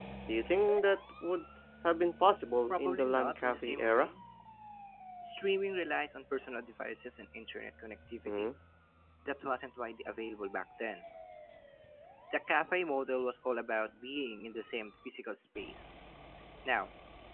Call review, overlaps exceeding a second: present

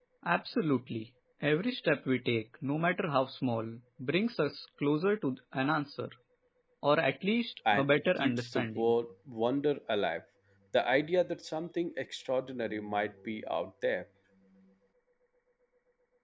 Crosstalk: present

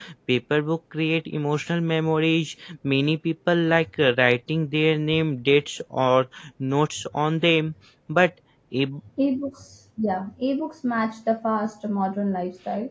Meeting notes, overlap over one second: none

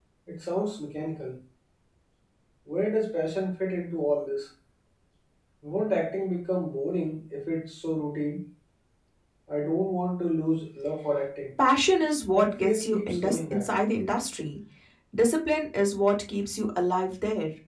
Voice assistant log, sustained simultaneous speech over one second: present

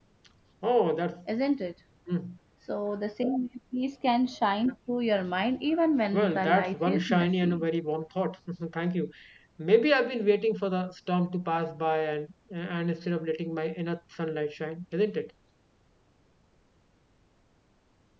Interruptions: present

